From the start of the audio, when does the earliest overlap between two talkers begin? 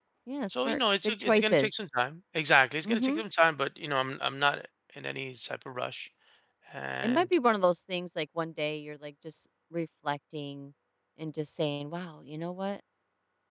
1 s

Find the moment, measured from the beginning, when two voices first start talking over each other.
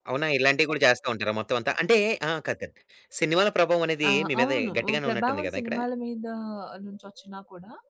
4 s

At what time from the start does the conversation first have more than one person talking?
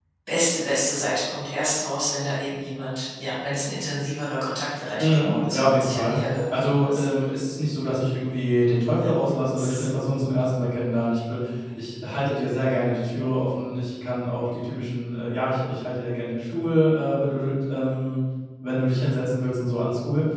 5 s

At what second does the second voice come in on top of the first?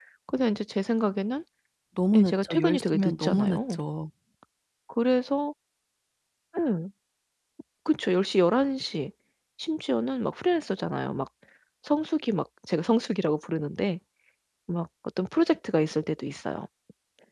2 s

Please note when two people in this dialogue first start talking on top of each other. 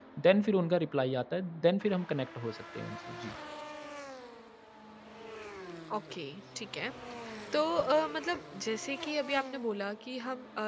none

